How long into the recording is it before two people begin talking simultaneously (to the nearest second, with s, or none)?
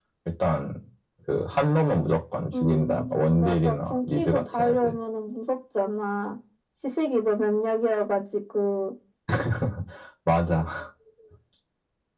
3 s